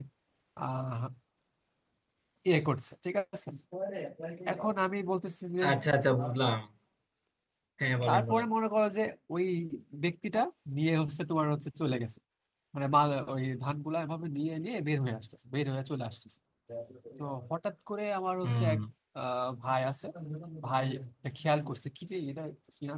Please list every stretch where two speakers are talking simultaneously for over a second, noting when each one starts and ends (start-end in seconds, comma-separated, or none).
none